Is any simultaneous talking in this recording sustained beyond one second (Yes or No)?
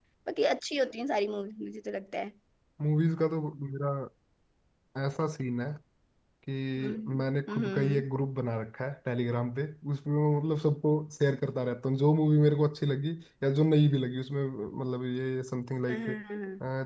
Yes